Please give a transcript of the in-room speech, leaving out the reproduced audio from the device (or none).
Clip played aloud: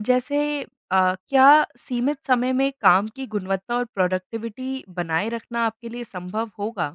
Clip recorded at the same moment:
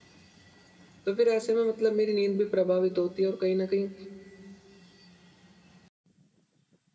तो फिर ऐसे में मतलब मेरी नींद भी प्रभावित होती है और कहीं न कहीं